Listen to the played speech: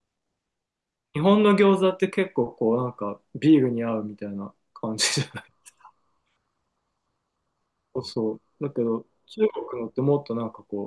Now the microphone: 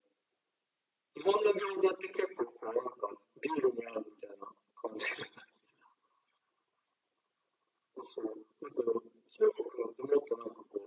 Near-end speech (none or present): none